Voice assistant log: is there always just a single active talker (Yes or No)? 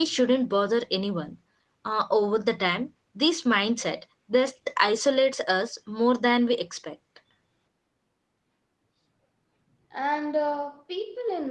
Yes